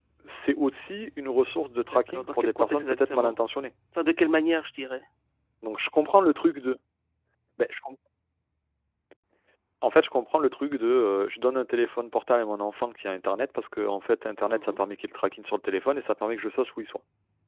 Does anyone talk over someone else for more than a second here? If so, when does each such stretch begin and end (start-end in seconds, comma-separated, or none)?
1.9-3.4